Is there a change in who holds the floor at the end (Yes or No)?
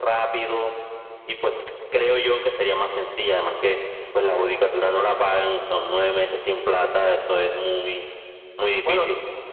Yes